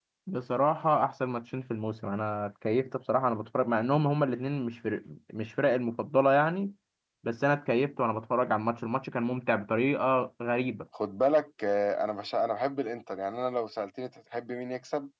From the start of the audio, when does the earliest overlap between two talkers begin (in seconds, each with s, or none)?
none